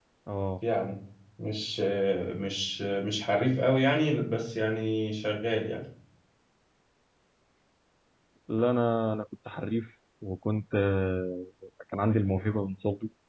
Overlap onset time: none

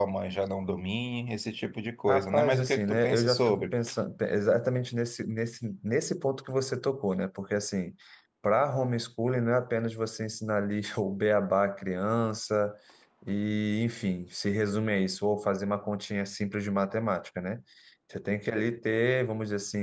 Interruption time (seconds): 2.1 s

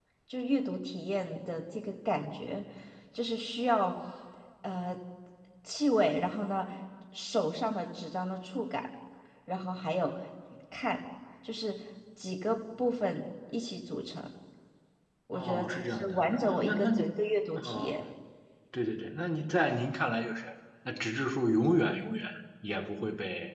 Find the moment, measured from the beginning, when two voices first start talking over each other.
15.3 s

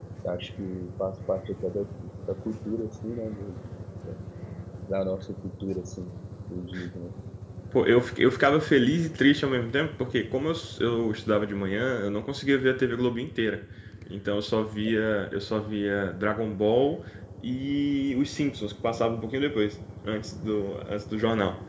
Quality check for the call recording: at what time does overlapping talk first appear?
none

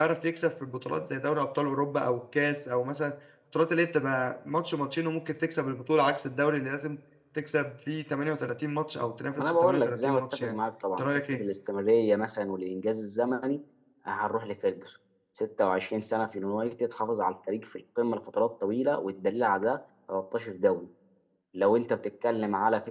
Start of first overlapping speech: 9.3 s

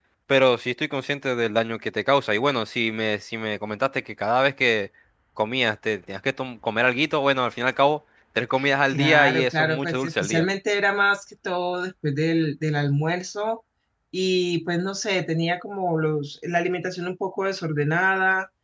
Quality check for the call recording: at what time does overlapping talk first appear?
8.9 s

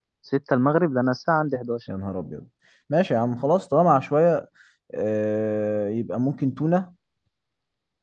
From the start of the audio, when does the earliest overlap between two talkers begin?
none

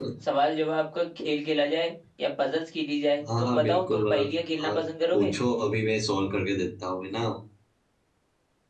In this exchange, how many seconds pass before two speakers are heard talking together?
3.2 s

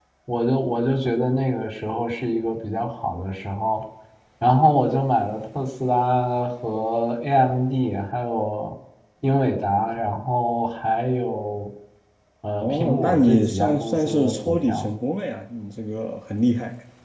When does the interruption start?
12.6 s

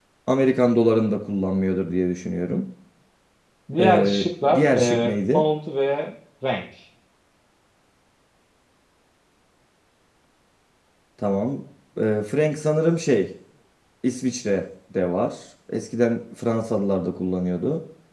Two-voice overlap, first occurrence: 3.8 s

